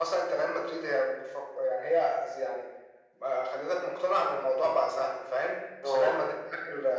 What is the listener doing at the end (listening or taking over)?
listening